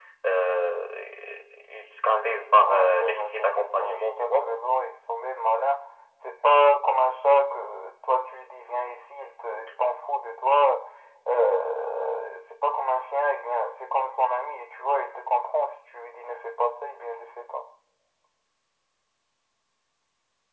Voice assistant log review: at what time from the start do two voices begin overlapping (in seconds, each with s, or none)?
2.6 s